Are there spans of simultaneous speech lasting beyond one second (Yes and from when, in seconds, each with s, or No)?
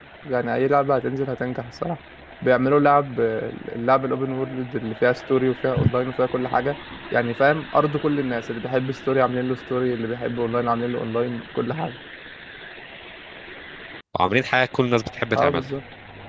No